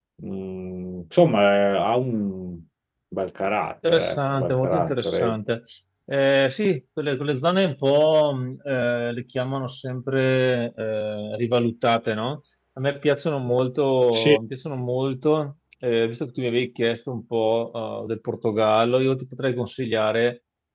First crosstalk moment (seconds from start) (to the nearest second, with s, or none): 4 s